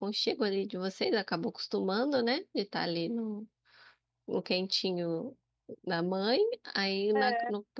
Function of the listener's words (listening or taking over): listening